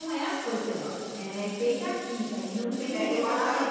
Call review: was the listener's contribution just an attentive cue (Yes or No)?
No